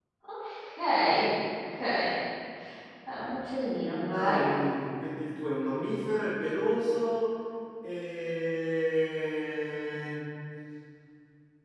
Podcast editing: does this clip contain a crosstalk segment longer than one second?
No

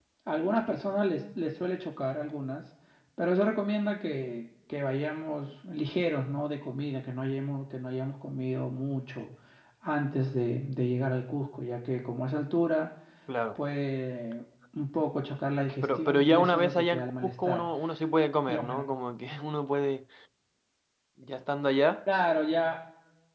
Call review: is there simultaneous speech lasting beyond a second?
Yes, from 15.8 s

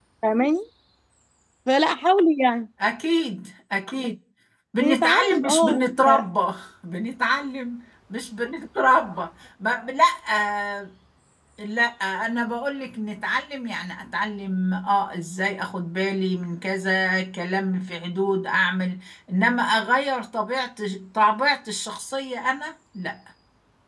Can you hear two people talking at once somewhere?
Yes, from 4.8 s

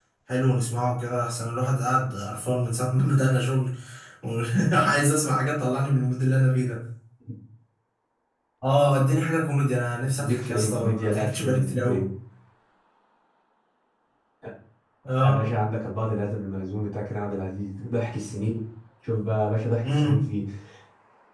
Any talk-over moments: Yes, from 10.2 s

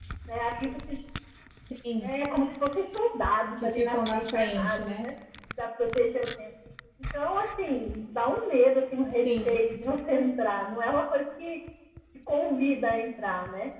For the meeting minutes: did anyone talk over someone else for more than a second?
Yes, from 3.8 s

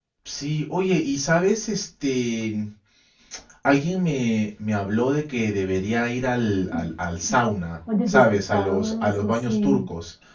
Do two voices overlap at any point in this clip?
Yes, from 8.1 s

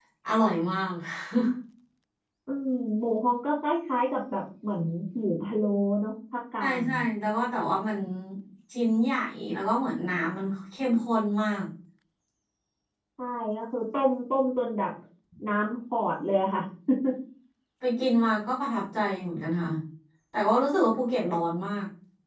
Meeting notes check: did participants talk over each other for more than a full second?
No

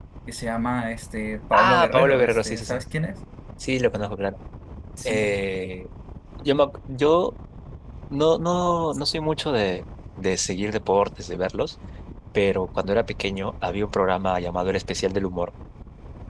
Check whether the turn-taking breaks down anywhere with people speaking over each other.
Yes, from 1.5 s

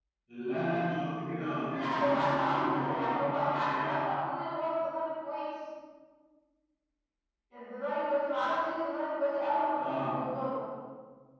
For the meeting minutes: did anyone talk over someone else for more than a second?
Yes, from 1.7 s

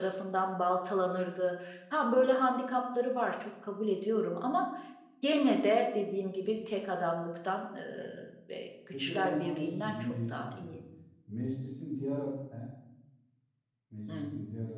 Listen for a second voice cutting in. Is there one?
Yes, from 8.9 s

